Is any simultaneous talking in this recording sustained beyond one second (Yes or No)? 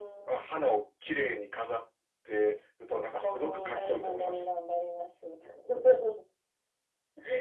Yes